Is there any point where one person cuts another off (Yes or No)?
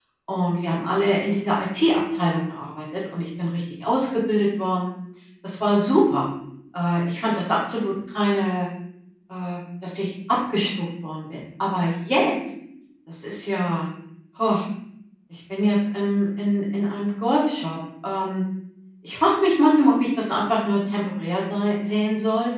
No